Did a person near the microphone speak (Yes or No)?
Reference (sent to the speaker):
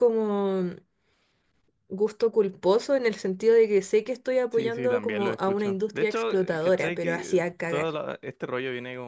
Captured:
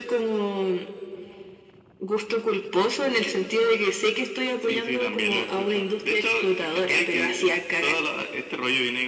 No